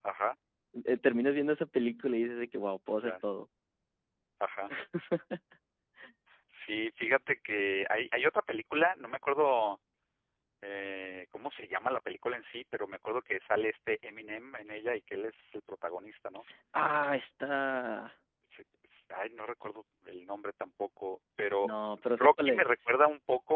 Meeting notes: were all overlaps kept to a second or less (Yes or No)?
Yes